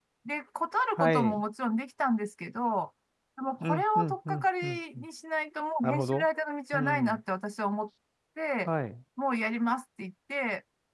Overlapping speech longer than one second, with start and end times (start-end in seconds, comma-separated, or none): 3.6-5.0